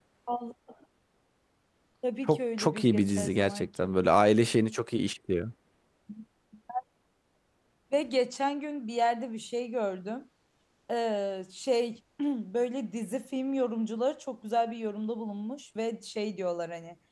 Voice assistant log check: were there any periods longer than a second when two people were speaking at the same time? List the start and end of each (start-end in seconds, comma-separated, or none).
2.3-3.9